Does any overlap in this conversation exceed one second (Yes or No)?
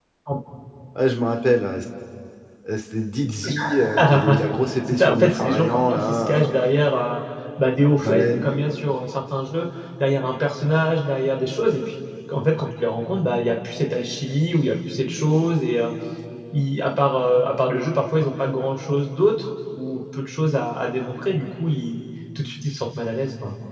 Yes